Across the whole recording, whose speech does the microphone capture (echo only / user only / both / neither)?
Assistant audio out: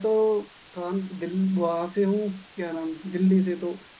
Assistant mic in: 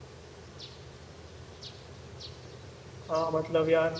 user only